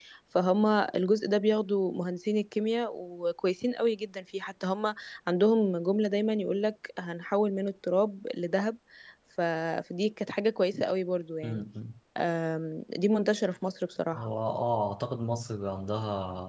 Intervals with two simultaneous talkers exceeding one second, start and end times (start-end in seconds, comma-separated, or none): none